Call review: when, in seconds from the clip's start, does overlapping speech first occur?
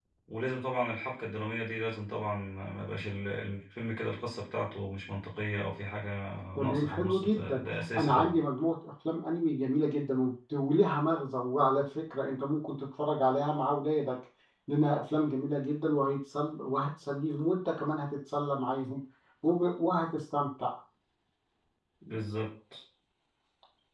7 s

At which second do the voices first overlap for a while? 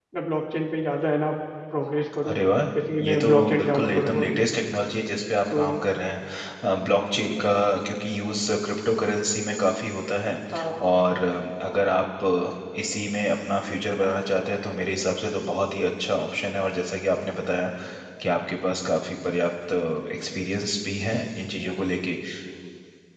3 s

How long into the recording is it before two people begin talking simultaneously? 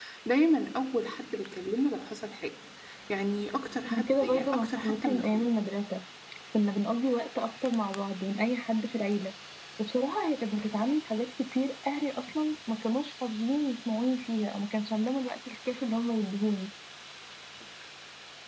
4 s

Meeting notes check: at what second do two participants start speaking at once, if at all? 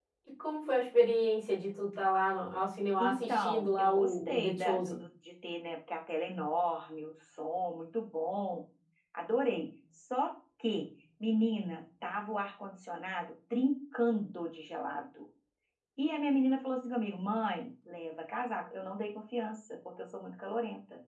3 s

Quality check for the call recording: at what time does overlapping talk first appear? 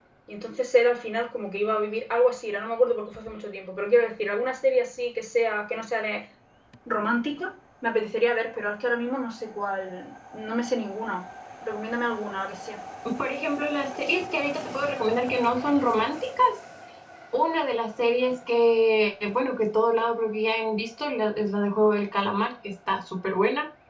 none

